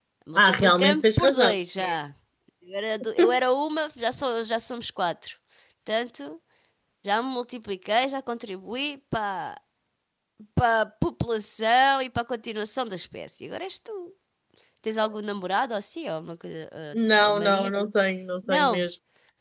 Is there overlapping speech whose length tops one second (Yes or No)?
Yes